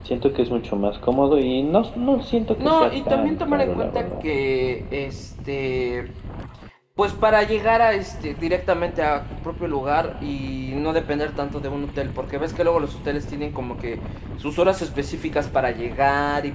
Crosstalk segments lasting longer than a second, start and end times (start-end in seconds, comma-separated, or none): 2.6-4.1